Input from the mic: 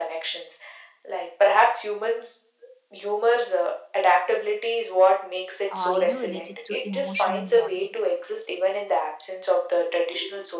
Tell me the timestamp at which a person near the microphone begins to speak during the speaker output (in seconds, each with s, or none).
5.7 s